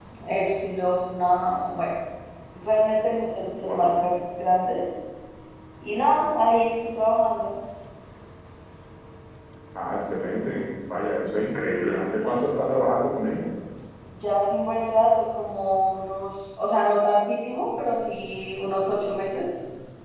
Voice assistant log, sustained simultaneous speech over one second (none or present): none